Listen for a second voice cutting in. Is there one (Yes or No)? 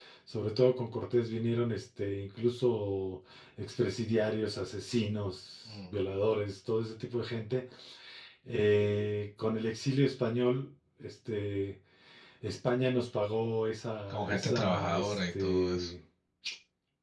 Yes